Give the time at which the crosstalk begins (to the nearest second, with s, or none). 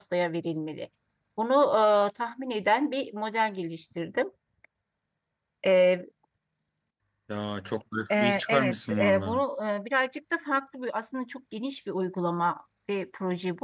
8 s